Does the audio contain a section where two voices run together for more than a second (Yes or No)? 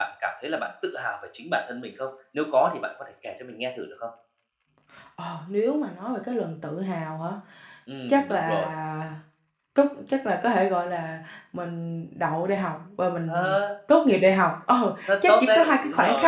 Yes